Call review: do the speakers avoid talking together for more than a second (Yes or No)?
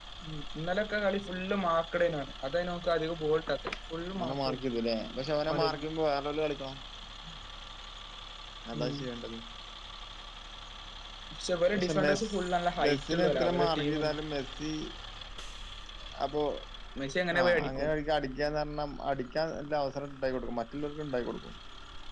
No